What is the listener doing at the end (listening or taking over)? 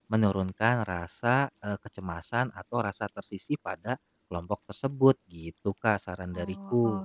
taking over